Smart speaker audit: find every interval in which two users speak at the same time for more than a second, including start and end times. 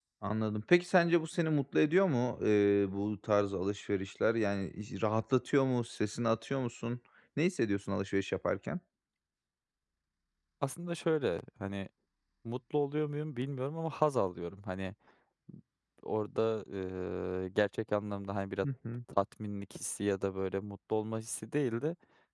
none

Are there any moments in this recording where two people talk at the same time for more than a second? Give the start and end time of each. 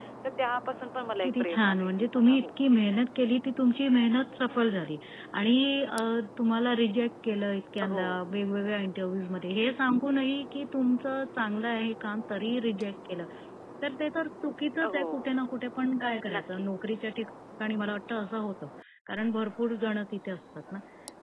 1.2-2.5

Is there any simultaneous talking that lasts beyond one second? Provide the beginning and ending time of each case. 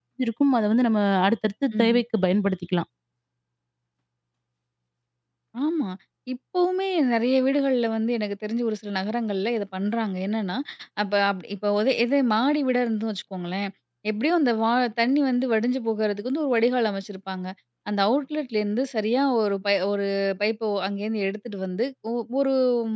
none

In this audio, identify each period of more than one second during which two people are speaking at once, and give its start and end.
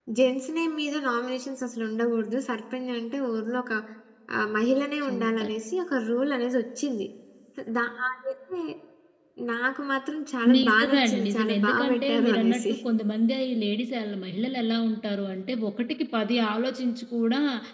10.6-12.7

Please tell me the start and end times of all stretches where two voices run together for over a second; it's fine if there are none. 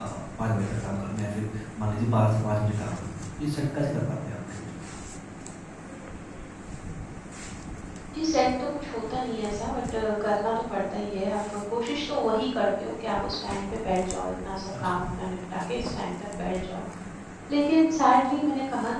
none

